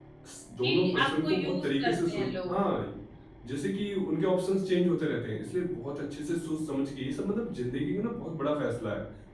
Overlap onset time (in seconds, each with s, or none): 0.6 s